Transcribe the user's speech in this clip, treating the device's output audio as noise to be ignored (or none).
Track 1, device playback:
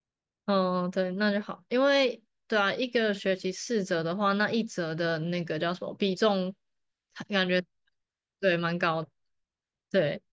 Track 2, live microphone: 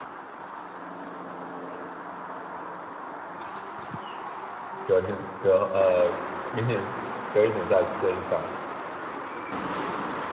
隔年隔呃明年隔一年再再去上，